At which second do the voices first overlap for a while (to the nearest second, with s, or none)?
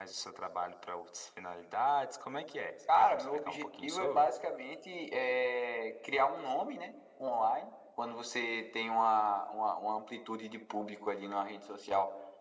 3 s